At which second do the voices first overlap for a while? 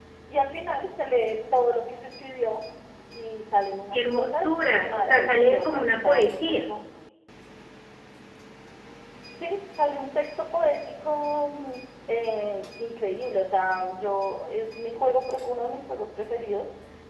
3.9 s

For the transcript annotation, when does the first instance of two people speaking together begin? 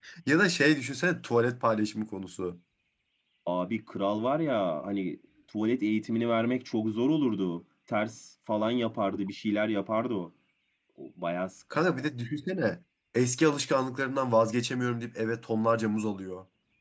none

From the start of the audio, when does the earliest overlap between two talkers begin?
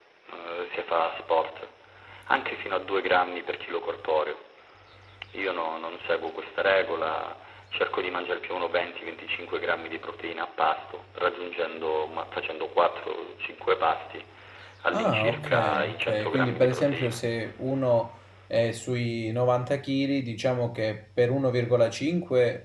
14.9 s

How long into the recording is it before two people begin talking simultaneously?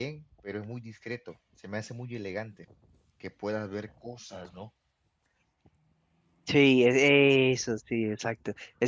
none

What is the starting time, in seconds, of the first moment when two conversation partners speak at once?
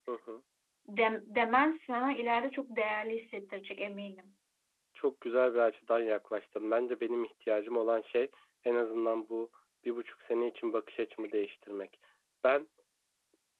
none

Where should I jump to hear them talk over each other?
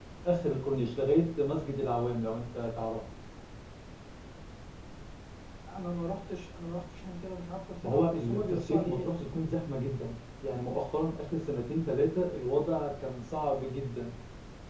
7.8 s

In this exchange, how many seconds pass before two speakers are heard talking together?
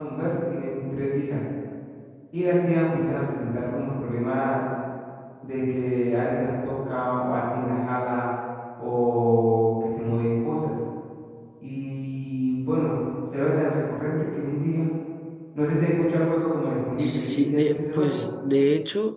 17.0 s

